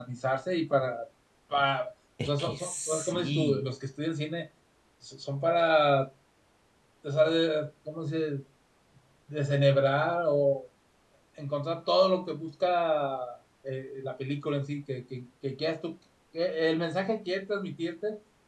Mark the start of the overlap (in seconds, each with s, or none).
2.2 s